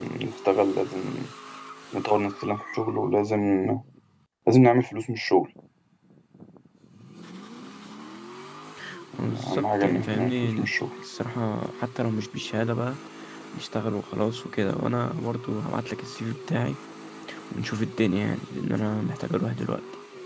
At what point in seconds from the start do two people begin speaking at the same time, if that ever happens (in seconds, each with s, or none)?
9.2 s